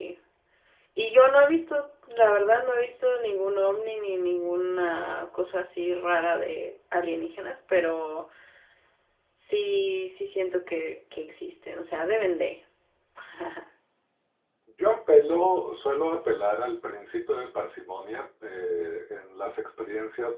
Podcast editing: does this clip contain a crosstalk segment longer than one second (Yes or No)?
No